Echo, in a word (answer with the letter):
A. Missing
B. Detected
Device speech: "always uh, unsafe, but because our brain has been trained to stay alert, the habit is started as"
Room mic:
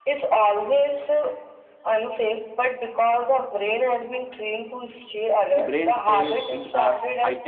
B